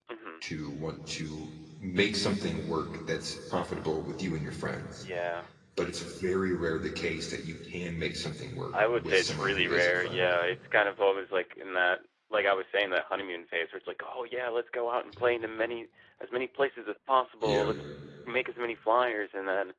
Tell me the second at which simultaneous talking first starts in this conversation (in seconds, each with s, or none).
8.9 s